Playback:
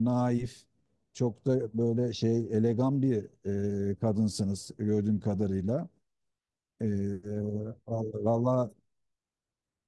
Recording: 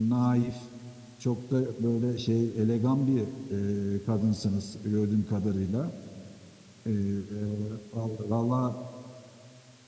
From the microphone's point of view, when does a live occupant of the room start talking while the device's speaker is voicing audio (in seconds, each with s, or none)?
none